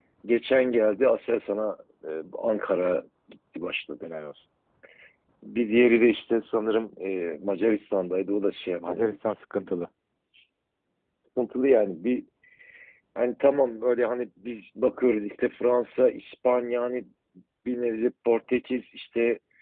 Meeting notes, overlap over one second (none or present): none